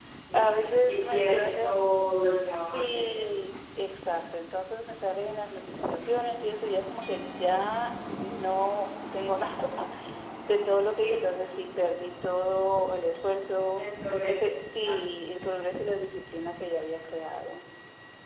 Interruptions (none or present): present